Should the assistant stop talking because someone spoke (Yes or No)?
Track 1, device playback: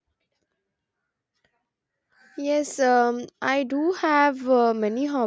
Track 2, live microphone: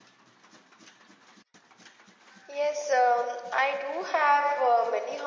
No